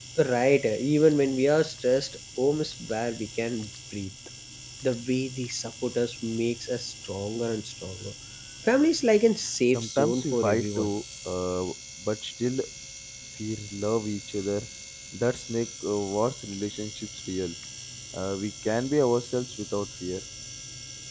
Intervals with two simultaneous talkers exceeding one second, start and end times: 9.7-10.9

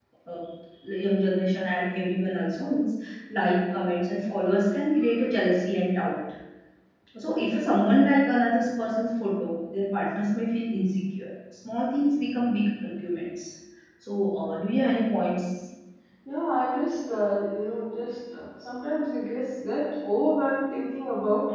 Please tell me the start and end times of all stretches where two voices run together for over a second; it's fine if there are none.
none

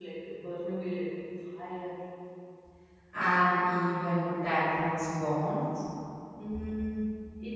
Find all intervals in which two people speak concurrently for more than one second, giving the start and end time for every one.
none

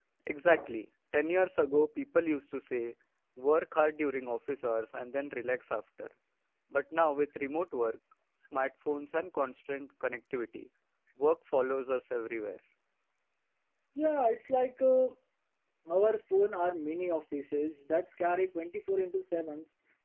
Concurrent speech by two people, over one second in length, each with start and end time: none

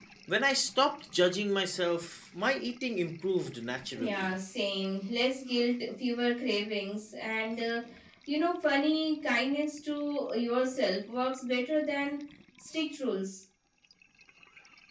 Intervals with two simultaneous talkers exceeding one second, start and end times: none

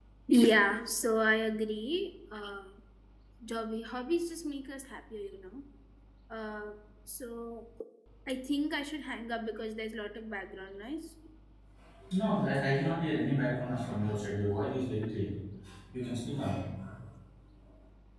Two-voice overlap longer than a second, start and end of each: none

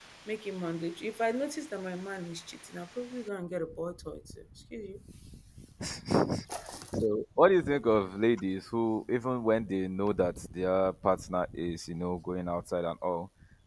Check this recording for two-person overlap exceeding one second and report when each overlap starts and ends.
none

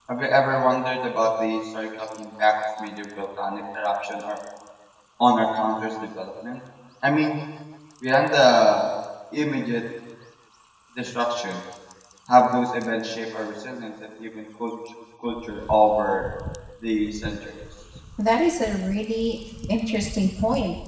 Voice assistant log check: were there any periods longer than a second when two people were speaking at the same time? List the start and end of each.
none

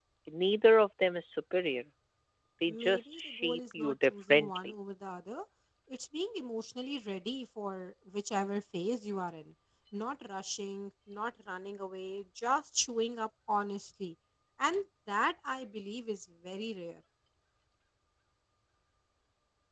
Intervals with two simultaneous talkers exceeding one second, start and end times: 2.7-4.7

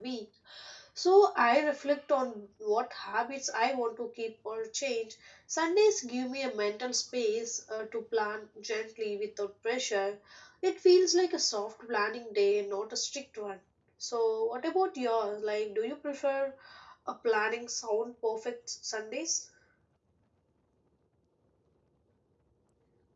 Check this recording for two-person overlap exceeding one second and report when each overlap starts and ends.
none

